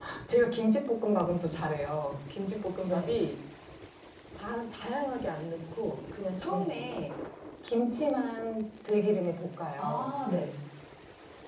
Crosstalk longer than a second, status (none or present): none